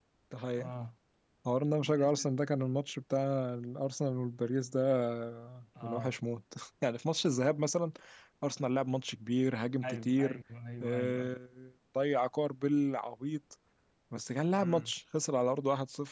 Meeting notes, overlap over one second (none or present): none